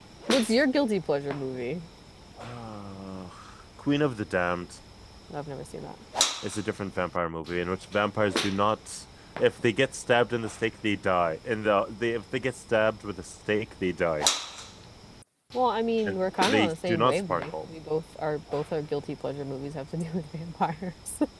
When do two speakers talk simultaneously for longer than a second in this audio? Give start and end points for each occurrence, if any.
16.1-17.5

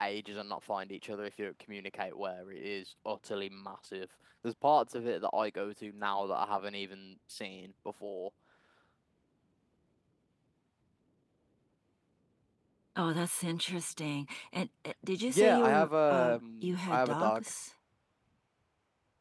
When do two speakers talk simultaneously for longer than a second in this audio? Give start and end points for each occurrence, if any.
15.3-17.5

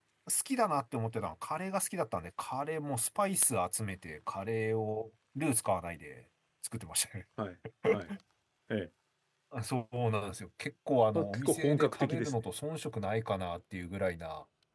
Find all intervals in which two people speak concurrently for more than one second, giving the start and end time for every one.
11.2-12.4

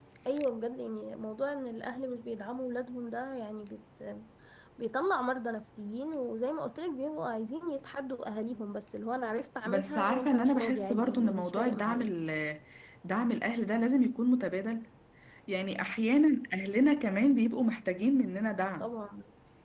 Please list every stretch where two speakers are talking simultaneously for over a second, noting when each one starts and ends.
9.7-12.1

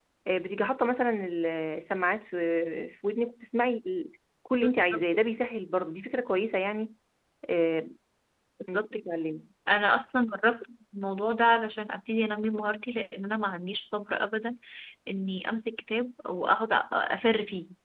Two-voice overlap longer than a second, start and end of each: none

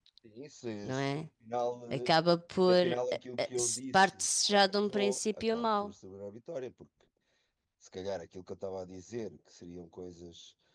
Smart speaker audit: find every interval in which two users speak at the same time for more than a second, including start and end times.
3.4-5.9

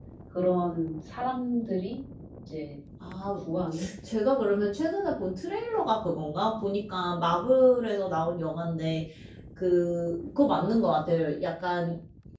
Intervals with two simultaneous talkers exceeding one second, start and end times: none

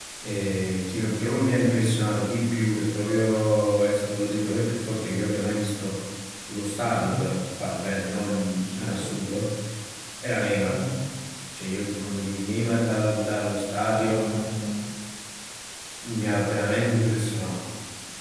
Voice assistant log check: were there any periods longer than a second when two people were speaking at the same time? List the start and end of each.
none

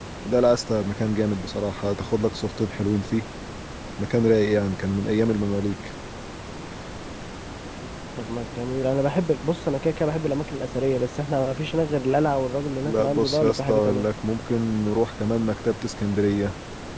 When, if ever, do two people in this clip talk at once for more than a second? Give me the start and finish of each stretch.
12.8-14.1

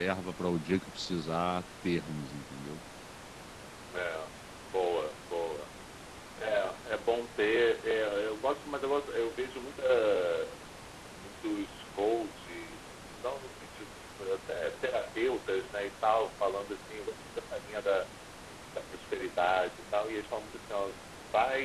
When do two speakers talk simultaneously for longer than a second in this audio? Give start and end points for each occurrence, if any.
none

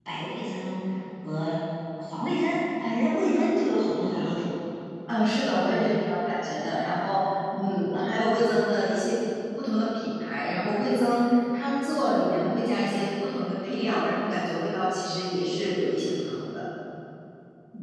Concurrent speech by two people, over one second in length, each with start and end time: none

